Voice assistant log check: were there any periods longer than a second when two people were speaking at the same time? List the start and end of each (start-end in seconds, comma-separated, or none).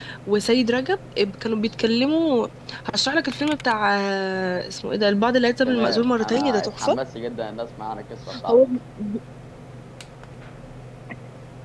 5.7-7.0